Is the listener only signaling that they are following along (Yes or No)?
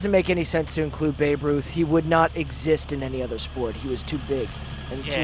No